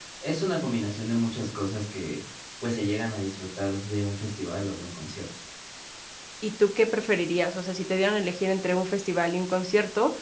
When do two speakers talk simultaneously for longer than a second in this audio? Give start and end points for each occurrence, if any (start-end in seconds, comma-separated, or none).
none